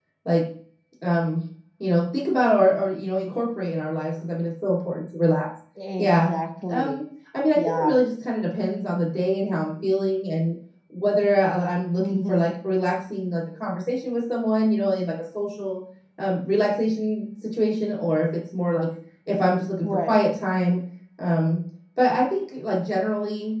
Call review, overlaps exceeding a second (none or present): none